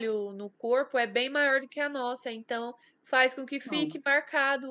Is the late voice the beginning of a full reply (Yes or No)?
No